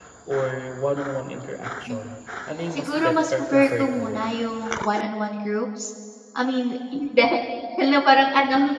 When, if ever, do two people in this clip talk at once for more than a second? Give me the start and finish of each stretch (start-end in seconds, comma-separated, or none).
2.7-4.3